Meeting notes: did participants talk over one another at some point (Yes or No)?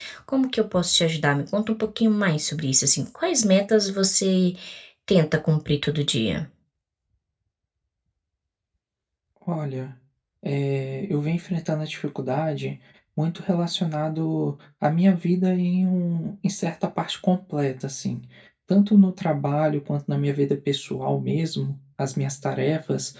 No